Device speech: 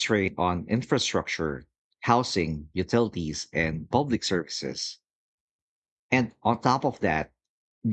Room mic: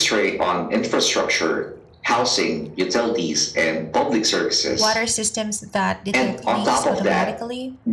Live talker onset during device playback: 4.8 s

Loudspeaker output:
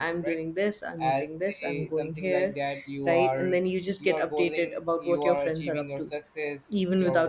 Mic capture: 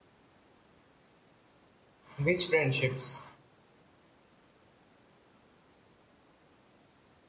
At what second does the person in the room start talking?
2.2 s

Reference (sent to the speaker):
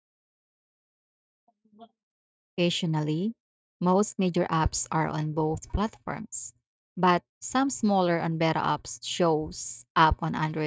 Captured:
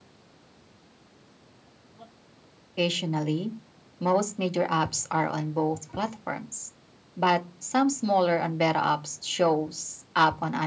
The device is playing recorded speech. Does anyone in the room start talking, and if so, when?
none

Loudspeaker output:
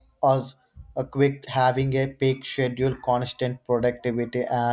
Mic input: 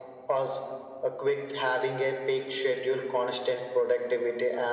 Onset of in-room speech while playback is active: none

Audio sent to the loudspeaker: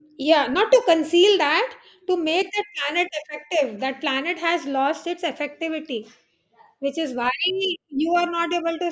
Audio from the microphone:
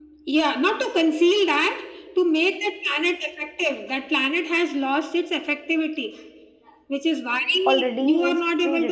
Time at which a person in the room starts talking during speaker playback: 7.7 s

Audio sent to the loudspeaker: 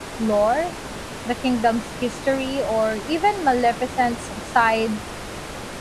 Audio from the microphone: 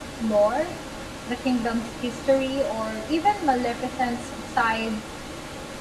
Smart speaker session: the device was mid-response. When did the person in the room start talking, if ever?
none

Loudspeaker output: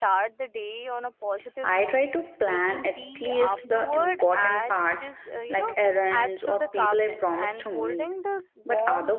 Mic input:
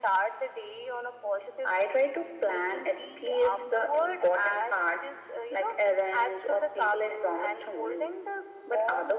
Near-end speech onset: none

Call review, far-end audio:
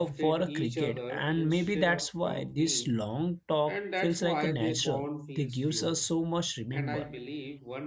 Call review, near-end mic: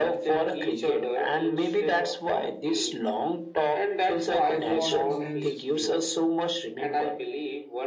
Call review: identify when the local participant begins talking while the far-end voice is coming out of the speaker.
4.4 s

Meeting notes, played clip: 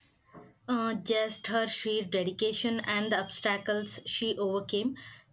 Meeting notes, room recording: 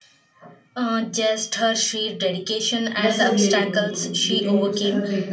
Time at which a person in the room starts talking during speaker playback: 3.0 s

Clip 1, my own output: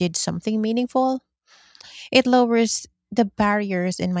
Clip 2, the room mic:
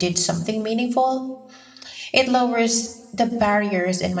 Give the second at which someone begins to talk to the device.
none

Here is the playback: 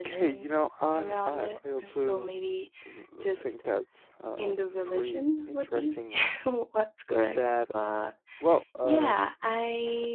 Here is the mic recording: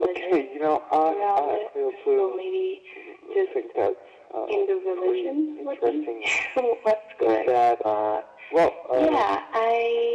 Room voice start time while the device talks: none

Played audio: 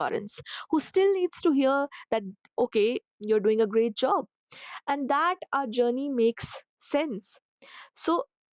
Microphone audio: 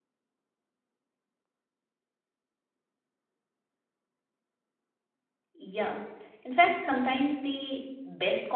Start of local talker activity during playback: 5.5 s

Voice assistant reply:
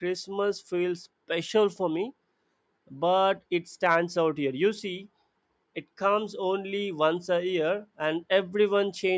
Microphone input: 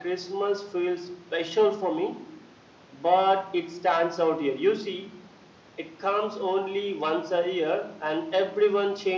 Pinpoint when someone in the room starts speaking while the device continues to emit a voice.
none

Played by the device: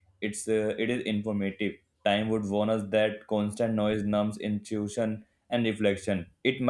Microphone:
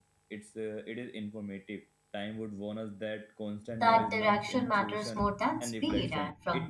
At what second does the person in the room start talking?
3.8 s

